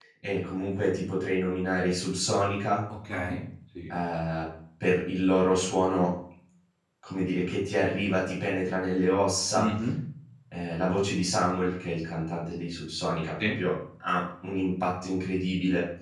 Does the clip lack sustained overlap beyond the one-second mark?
Yes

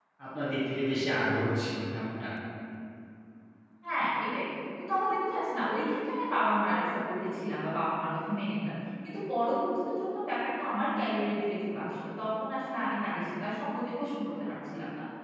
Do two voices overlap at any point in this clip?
No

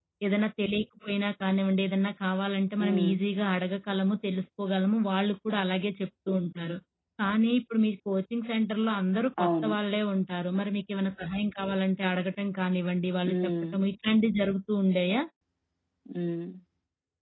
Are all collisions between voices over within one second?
Yes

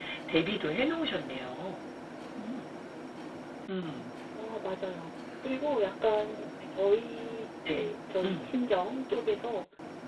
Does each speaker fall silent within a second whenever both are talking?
Yes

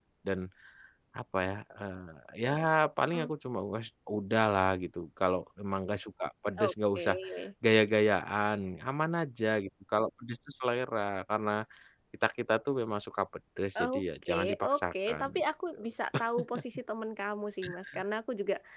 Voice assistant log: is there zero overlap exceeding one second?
No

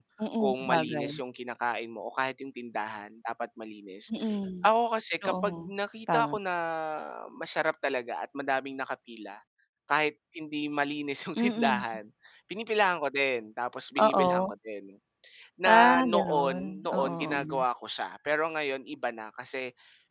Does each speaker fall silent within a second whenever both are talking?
No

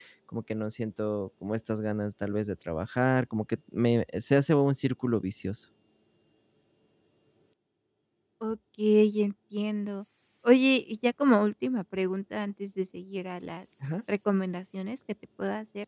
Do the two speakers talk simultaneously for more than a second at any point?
No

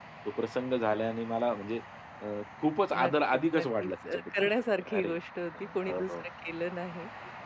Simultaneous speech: Yes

